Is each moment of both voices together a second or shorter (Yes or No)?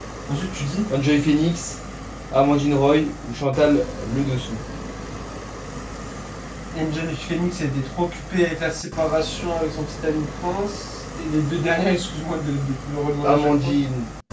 Yes